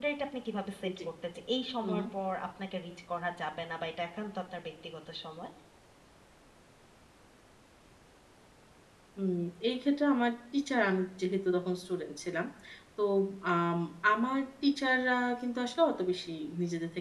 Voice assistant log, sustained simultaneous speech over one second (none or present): none